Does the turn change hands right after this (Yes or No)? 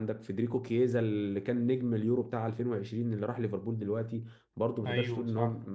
No